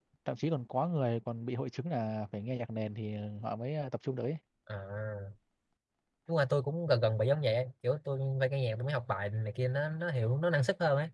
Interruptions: none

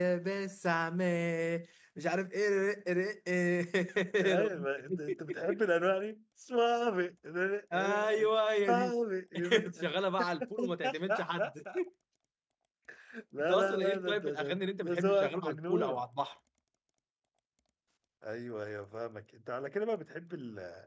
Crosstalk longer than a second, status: present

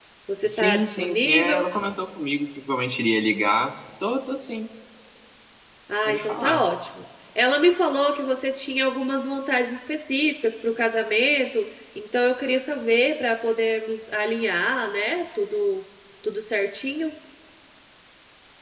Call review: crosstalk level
present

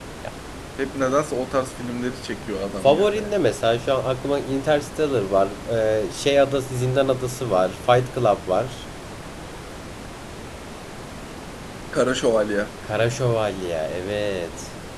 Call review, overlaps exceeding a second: none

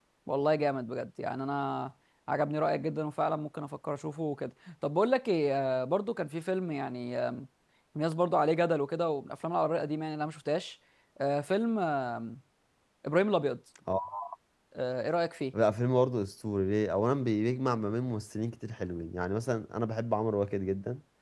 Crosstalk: none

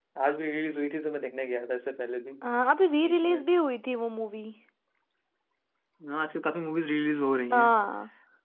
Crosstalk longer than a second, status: none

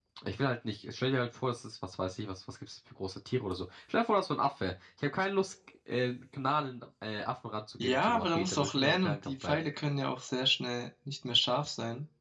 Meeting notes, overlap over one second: present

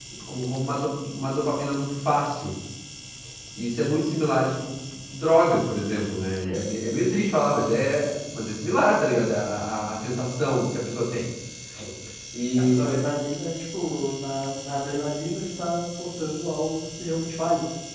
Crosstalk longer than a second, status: none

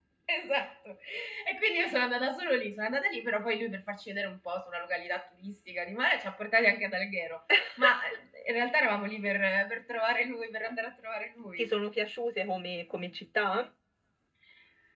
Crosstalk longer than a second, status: none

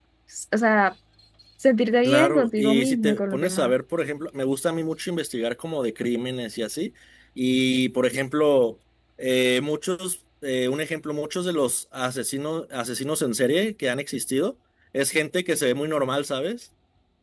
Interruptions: present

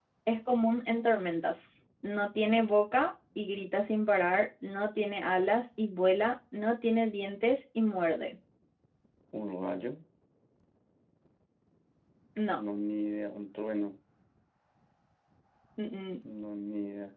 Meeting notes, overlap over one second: none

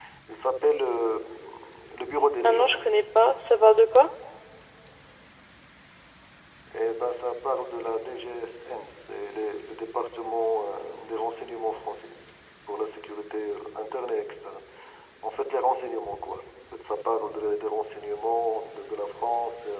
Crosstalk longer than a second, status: none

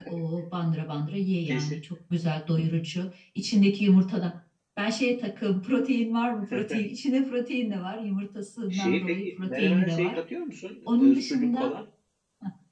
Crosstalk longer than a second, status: present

